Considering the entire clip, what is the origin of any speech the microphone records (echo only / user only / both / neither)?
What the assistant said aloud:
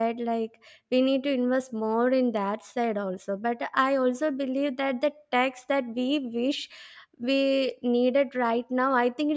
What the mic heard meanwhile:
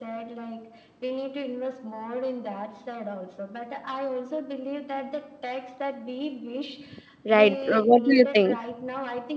both